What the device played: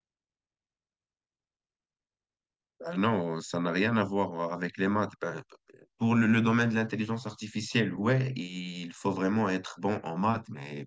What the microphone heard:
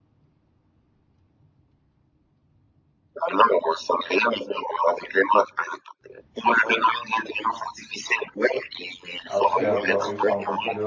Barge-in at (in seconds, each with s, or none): 9.2 s